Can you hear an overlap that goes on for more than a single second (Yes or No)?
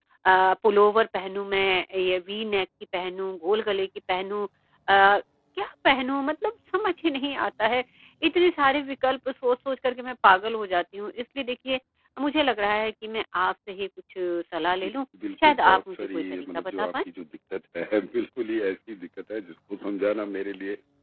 Yes